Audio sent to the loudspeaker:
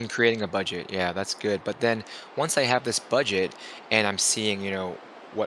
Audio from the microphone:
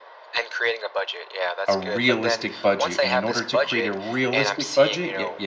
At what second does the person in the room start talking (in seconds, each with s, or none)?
1.7 s